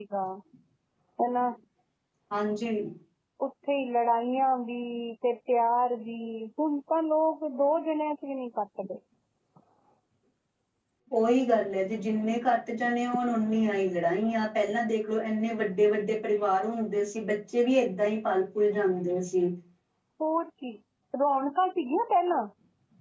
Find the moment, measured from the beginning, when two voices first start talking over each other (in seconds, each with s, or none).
none